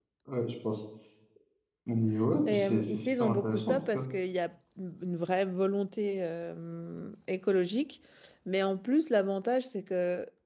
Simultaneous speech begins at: 2.5 s

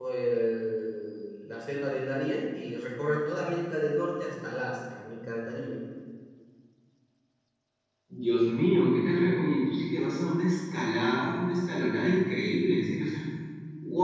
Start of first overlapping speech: none

